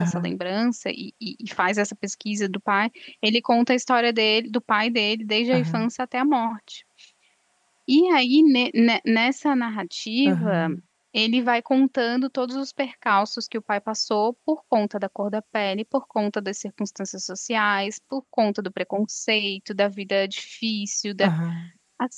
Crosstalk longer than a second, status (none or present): none